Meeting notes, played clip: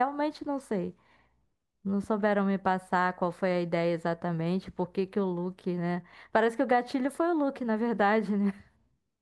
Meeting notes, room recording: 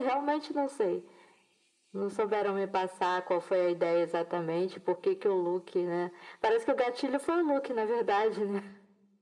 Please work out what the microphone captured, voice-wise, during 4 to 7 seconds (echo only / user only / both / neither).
echo only